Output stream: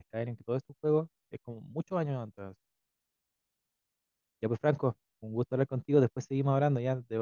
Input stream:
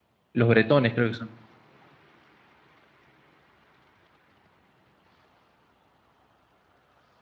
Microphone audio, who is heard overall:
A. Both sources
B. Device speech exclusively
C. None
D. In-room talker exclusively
D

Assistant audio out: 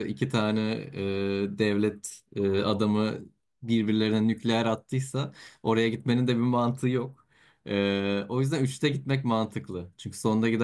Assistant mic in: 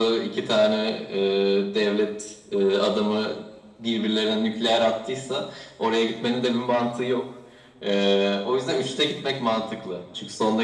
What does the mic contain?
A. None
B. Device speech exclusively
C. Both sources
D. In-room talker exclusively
B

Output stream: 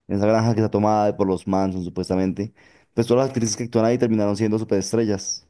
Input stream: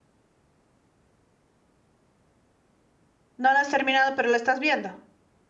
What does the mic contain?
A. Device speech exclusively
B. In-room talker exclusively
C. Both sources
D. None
B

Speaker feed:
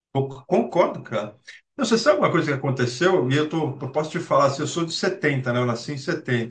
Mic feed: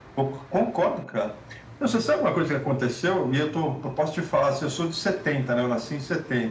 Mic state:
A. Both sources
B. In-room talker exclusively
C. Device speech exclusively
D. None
C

